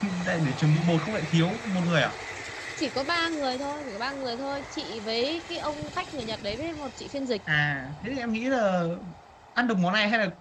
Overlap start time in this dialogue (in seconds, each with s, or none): none